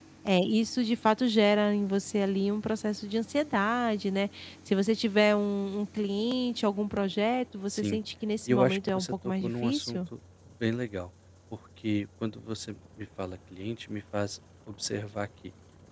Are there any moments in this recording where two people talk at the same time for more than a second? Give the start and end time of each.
8.5-10.0

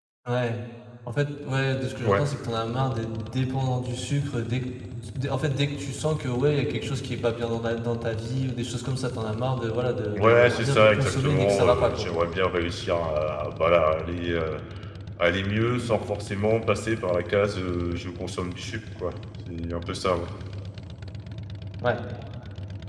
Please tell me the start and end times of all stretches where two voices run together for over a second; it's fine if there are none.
10.1-12.1

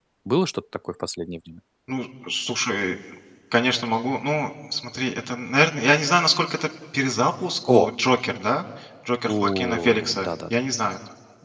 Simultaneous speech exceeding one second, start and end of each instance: 9.3-10.6

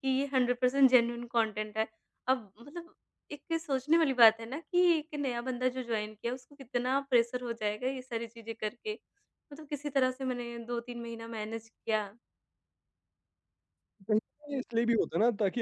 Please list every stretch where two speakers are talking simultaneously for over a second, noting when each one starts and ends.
none

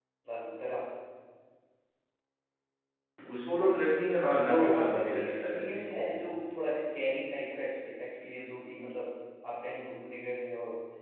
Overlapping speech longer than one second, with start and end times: 4.5-5.8

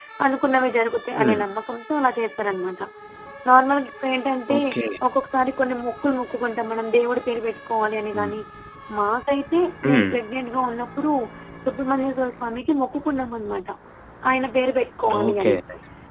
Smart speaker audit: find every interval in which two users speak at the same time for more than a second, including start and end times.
none

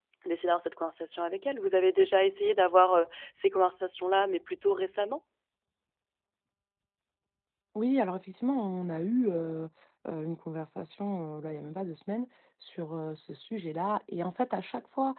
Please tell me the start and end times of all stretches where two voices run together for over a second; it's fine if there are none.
none

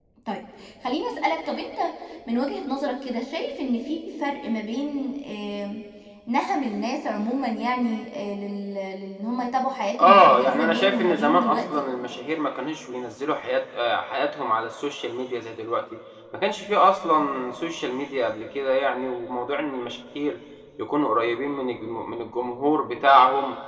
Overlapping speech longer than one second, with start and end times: 10.0-11.8

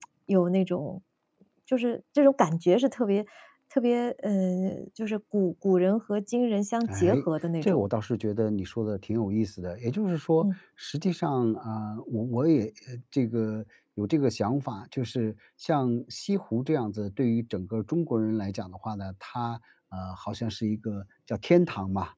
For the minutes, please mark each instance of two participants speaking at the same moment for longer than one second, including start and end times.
none

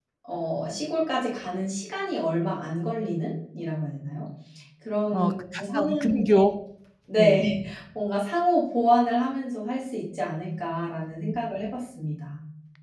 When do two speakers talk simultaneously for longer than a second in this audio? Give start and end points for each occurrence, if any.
5.1-6.4

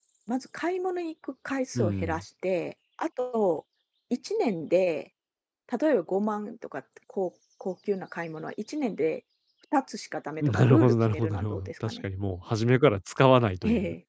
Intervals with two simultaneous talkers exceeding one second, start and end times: 10.4-12.1

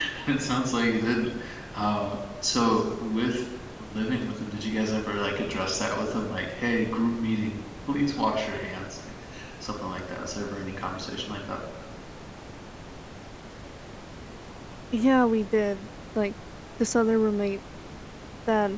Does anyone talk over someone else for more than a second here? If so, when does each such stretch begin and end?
none

